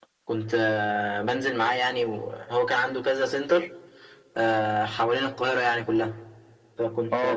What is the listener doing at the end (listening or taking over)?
taking over